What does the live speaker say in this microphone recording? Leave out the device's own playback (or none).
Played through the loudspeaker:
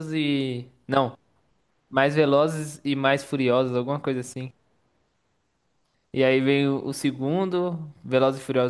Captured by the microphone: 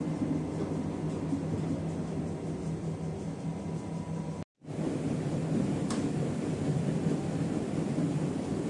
none